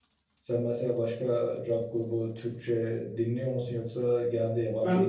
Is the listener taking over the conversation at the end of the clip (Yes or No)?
Yes